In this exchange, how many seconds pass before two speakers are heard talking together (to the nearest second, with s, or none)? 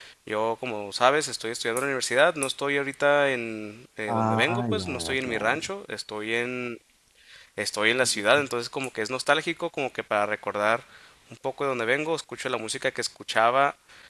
4 s